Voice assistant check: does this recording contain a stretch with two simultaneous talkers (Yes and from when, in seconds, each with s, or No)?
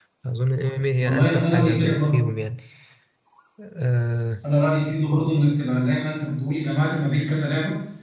Yes, from 1.0 s